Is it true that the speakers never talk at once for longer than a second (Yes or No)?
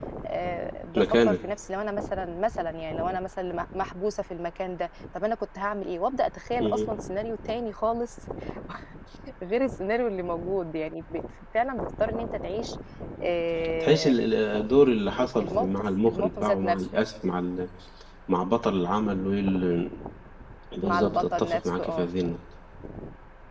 No